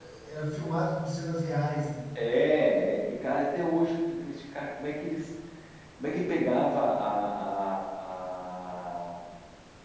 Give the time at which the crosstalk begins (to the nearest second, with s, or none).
none